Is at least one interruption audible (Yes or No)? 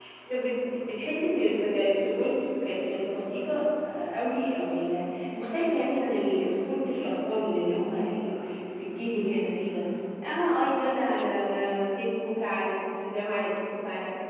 No